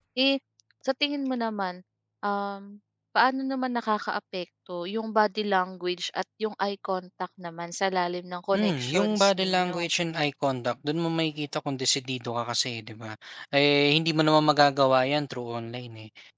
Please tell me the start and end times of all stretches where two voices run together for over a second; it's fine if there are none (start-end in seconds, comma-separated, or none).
8.5-9.8